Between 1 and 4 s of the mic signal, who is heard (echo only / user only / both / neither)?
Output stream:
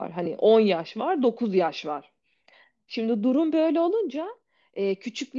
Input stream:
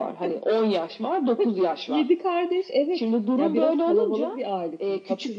both